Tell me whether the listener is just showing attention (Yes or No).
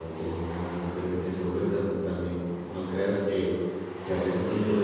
Yes